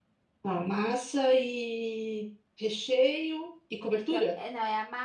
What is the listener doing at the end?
taking over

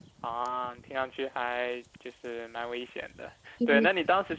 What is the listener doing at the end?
listening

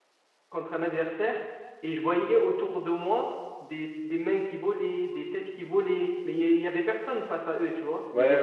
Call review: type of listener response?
taking over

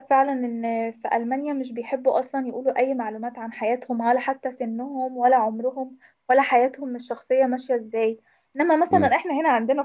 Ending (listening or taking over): listening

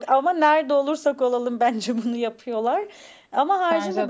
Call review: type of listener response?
listening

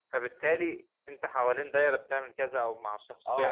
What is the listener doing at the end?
taking over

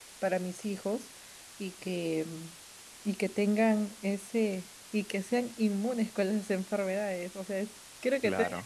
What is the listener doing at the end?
listening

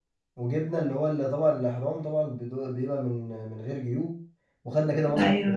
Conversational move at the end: listening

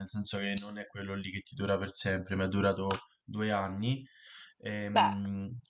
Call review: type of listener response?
listening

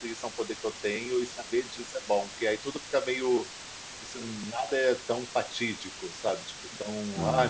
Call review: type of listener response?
listening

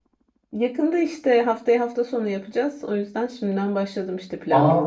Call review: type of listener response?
taking over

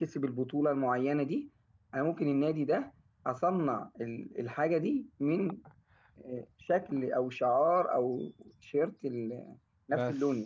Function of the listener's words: taking over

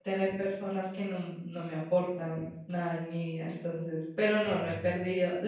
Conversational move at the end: listening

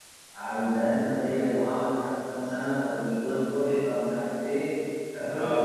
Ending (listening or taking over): taking over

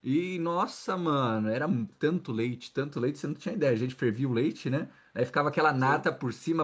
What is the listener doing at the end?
listening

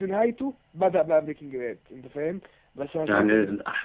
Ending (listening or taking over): taking over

